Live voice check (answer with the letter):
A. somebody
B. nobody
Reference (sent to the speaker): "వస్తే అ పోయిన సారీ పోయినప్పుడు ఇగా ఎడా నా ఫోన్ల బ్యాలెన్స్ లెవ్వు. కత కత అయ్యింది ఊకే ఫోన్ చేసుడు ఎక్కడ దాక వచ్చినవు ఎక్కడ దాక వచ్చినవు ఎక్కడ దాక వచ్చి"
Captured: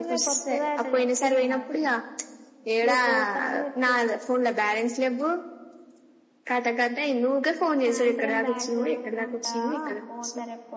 A